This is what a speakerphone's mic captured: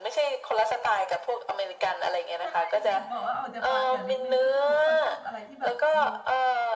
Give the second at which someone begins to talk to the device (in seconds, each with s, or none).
2.4 s